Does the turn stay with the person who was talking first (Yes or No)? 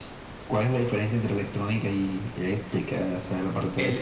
No